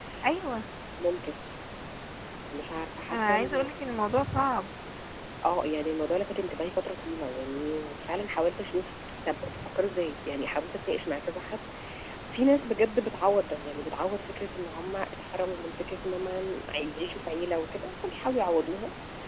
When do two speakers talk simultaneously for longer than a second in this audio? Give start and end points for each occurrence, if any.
none

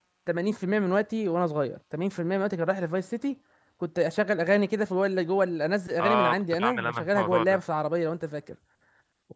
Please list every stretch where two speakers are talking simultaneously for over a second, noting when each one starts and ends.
6.0-7.6

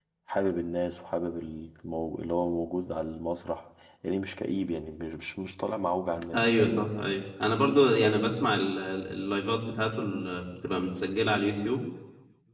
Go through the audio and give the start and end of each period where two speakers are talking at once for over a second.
none

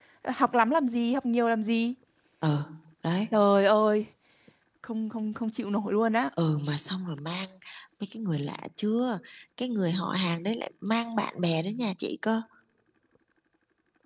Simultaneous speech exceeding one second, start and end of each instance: none

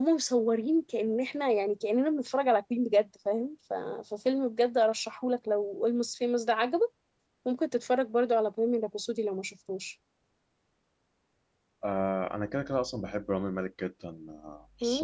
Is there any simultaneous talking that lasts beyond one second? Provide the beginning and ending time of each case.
none

